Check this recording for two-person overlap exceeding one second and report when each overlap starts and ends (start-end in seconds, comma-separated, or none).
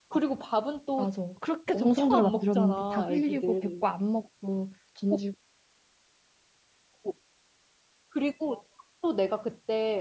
1.7-3.8